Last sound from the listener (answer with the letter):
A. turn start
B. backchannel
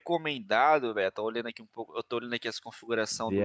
B